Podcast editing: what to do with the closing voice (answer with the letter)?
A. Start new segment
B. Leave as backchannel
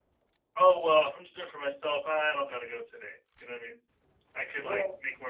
B